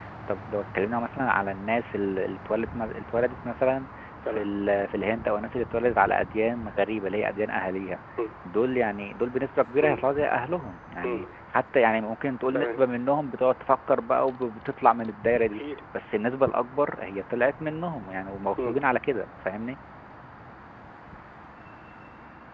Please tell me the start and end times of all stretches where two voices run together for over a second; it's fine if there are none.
none

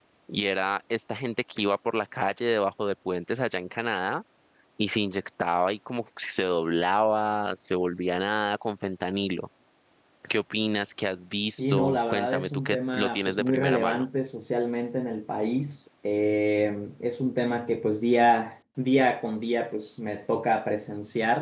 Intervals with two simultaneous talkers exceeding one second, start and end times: 11.6-14.1

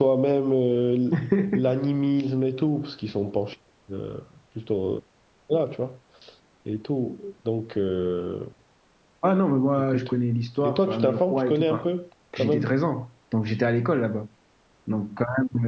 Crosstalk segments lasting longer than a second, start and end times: 10.6-11.9

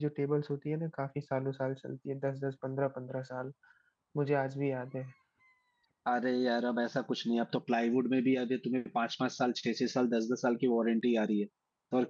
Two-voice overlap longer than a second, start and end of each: none

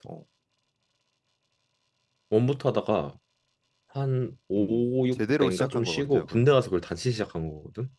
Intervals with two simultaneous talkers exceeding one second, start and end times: 4.6-6.5

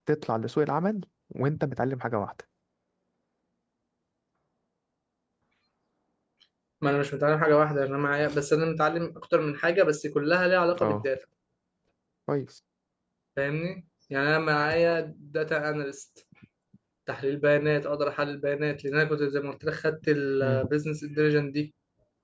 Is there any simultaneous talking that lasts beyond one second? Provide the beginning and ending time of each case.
none

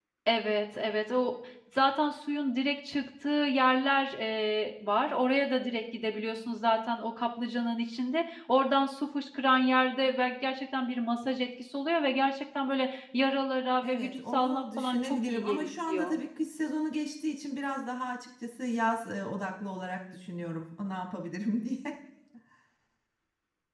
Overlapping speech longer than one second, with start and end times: 13.8-16.1

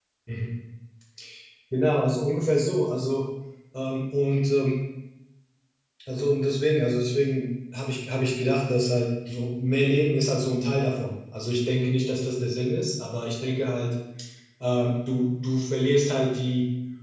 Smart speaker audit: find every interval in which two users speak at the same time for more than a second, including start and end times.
none

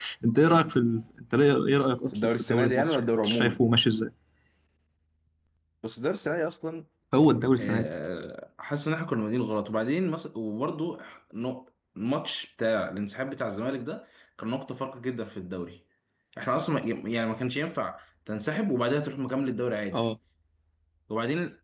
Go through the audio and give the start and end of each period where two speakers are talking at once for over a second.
2.1-3.6

